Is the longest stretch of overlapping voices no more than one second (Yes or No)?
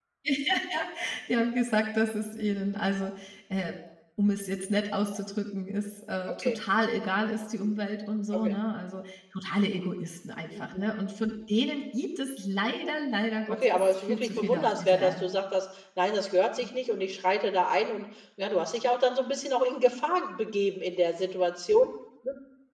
No